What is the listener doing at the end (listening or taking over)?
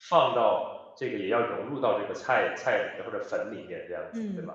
taking over